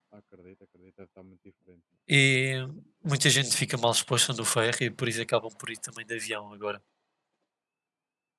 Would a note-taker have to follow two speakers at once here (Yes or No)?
No